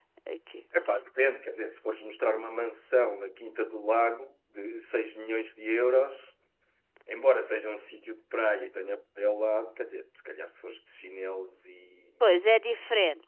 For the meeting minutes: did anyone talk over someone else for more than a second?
No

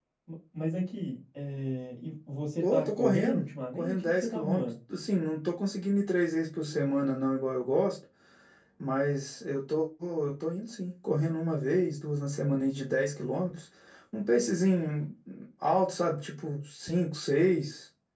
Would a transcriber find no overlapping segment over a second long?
No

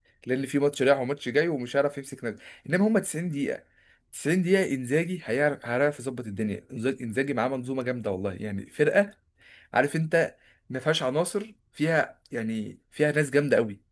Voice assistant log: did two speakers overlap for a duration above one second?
No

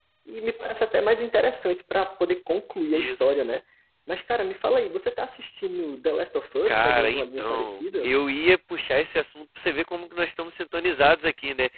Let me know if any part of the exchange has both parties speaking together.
Yes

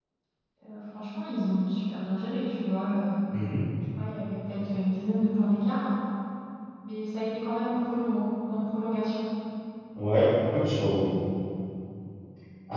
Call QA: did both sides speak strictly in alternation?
Yes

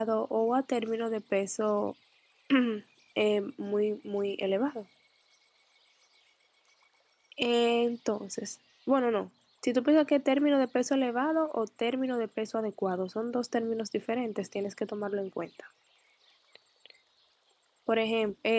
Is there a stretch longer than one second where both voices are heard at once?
No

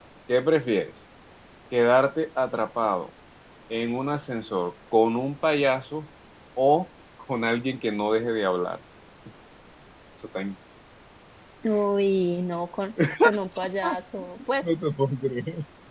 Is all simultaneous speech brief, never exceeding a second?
Yes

